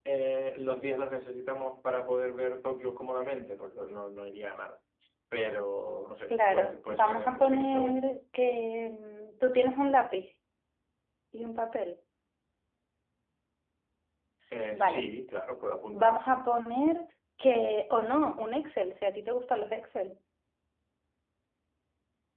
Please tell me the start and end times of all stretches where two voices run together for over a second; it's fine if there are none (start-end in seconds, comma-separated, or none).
6.3-8.0